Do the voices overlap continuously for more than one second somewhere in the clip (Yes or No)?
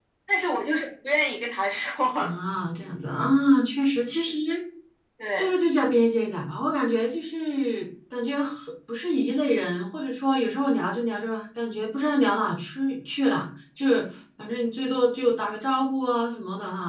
No